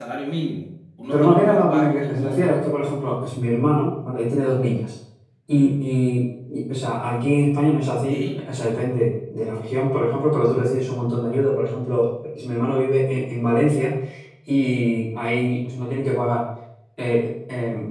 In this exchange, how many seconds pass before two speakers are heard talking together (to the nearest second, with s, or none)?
1 s